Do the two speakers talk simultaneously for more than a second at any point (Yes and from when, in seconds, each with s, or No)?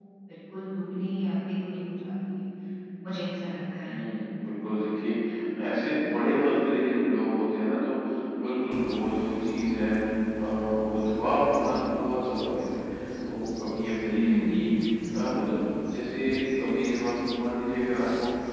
No